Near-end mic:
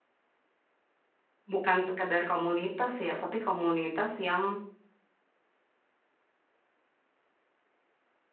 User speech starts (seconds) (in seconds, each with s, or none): 1.5 s